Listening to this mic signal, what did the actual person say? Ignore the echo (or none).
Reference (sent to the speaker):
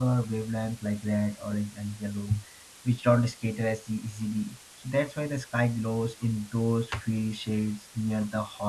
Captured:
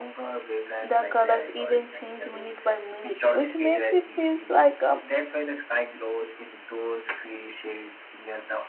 The colors even change minute by minute, which makes it feel like um,